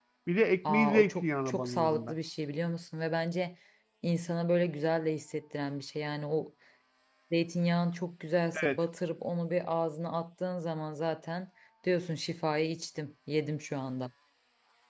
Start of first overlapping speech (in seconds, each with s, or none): 0.6 s